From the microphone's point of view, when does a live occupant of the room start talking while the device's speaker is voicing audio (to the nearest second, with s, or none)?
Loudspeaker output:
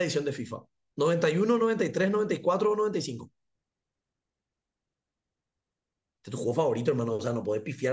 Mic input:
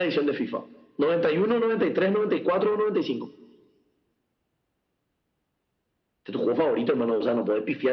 none